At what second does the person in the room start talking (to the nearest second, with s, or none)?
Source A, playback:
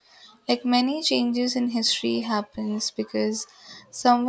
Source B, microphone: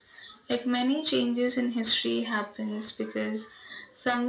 none